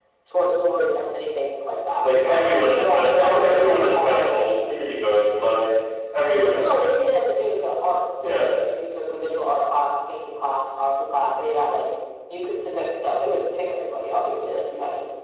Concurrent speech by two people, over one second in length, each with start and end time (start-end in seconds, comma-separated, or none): 2.0-4.3